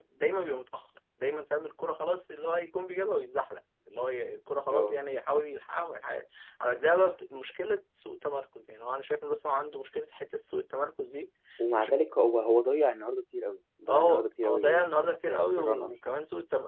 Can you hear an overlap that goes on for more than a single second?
Yes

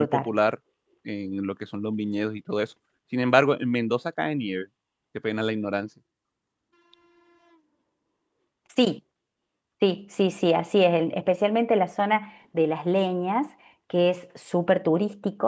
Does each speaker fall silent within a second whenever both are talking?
Yes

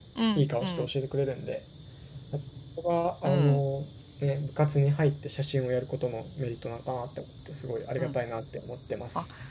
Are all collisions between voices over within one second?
Yes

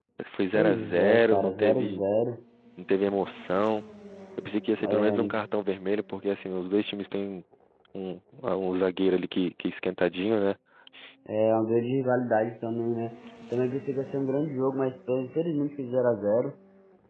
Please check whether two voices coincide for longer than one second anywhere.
Yes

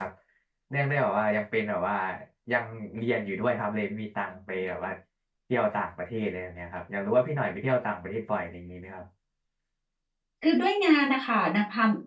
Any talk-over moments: No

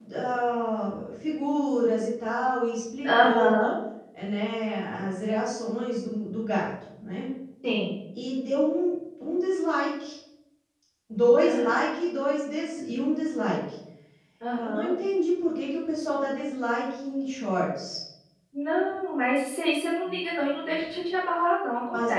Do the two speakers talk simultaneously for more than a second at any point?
No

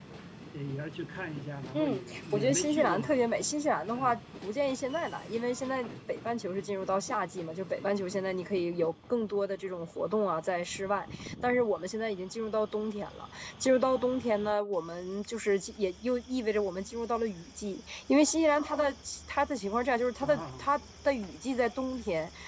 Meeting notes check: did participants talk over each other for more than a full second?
Yes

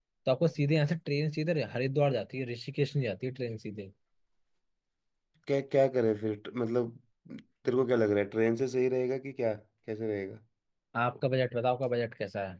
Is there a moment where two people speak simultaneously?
No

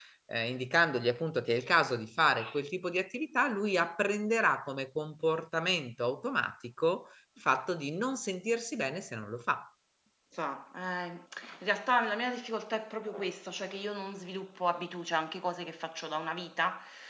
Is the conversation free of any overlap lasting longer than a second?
Yes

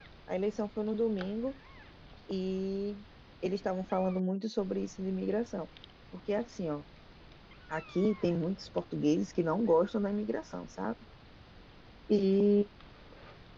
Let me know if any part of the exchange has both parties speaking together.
No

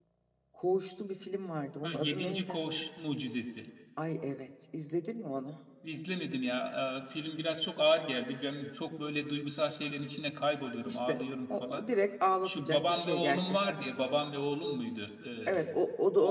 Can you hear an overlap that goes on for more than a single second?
Yes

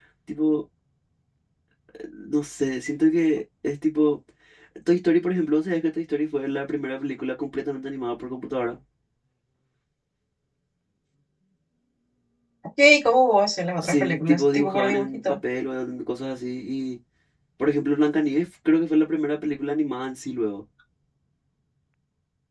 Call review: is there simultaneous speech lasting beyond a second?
Yes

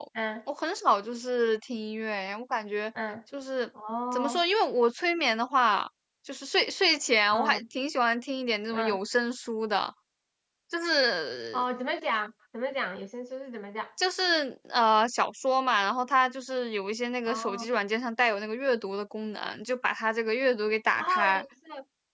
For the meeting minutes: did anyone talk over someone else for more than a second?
No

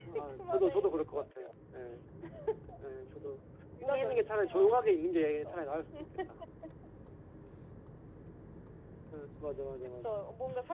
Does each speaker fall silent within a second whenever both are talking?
No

